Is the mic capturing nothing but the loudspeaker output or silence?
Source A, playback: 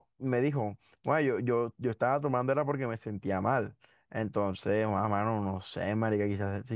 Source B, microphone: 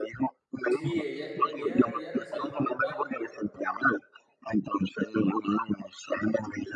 No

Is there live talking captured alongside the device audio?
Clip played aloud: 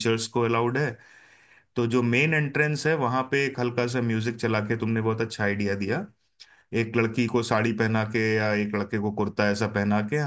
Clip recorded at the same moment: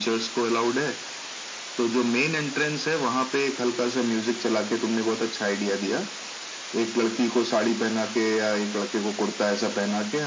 No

